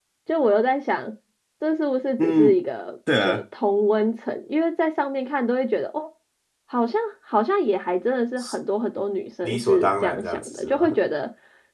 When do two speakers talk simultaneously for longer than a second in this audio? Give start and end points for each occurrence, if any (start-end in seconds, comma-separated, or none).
9.4-10.9